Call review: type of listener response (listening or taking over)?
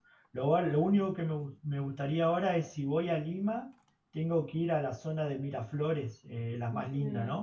taking over